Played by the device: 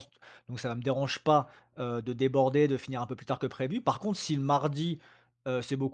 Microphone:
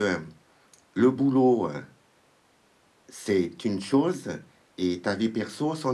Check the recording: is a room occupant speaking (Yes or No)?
Yes